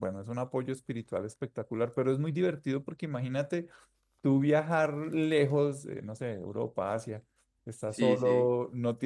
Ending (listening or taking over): listening